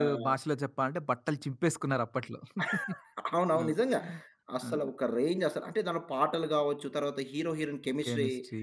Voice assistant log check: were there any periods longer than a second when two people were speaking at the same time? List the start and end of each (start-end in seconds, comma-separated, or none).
none